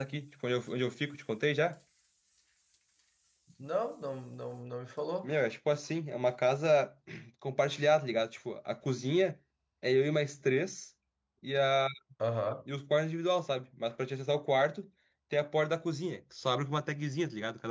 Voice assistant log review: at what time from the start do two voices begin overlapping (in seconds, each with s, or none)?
none